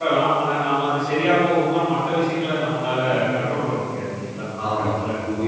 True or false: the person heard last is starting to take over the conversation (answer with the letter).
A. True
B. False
A